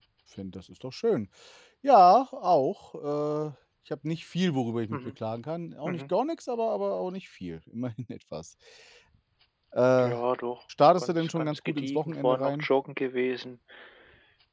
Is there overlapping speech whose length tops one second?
Yes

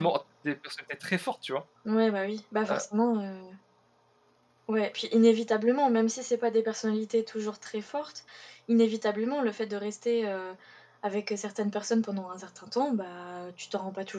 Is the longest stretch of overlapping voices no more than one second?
Yes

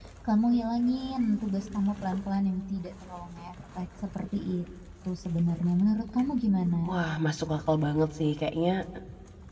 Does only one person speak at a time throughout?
Yes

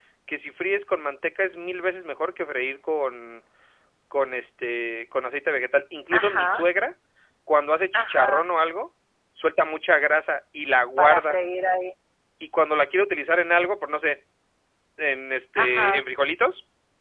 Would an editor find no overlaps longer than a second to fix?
Yes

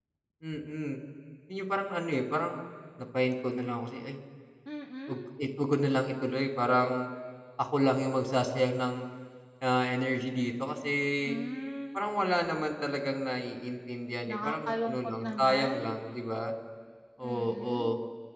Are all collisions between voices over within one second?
No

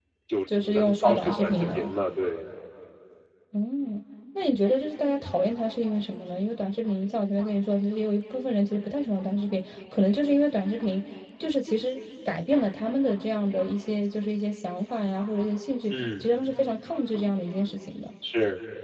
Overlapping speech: Yes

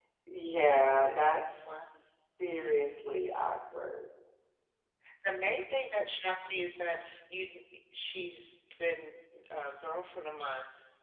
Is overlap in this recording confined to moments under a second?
Yes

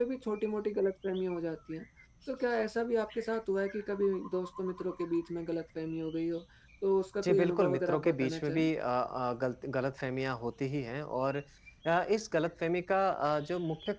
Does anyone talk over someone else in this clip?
Yes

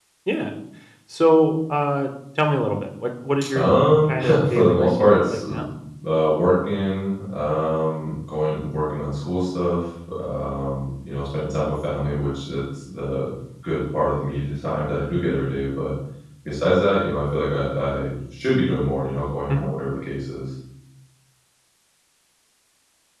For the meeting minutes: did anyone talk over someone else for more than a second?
Yes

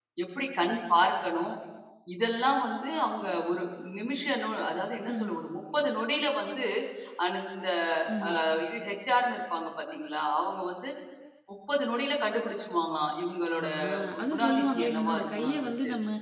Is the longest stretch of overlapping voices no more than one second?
No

